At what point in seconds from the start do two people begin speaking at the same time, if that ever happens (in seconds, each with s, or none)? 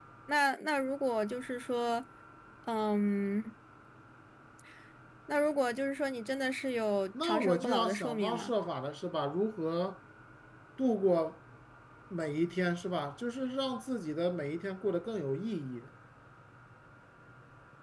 7.1 s